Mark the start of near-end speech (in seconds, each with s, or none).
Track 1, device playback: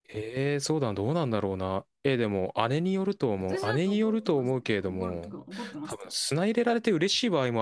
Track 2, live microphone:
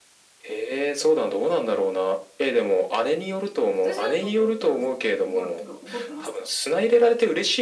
none